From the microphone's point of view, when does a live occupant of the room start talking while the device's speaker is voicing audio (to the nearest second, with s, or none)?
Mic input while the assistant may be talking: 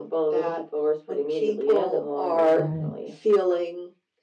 3 s